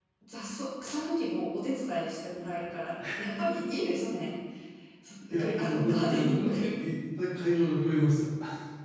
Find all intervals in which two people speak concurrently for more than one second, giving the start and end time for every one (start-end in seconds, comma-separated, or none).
5.3-6.5